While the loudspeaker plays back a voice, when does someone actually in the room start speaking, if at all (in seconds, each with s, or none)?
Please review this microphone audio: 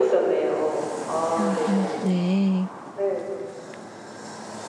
1.4 s